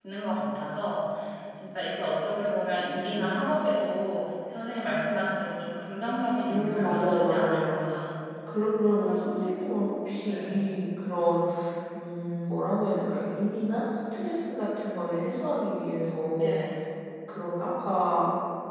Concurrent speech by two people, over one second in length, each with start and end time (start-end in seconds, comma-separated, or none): 6.5-7.8